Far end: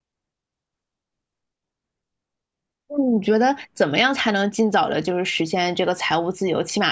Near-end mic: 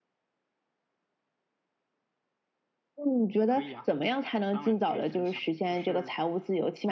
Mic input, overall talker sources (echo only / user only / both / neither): both